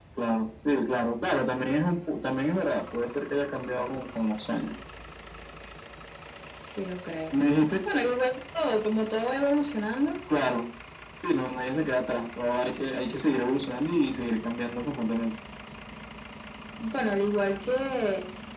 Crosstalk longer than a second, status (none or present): none